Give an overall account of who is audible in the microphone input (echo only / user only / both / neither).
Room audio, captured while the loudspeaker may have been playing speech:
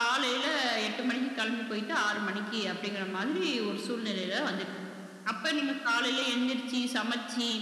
echo only